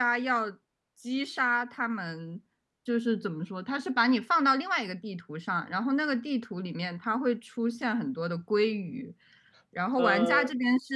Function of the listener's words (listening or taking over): listening